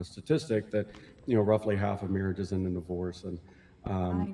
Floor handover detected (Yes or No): No